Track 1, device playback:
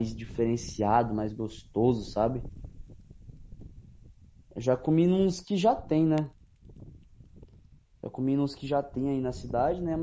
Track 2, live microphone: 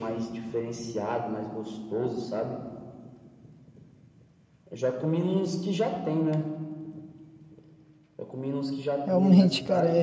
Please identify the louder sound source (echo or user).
user